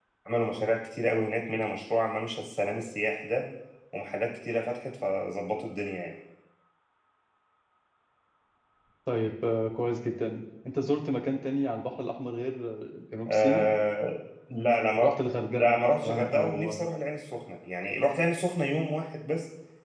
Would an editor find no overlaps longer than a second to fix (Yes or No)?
No